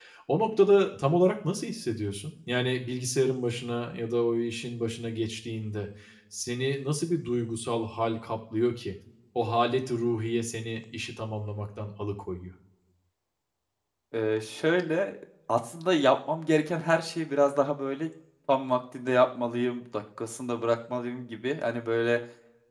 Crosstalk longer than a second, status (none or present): none